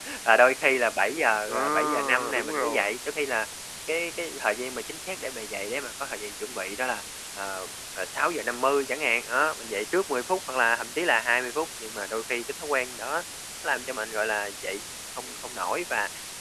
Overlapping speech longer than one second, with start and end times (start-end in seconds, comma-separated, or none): 1.5-3.0